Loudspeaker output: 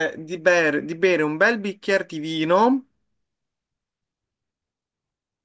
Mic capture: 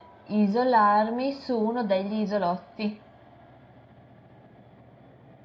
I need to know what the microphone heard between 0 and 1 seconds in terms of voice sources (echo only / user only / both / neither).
user only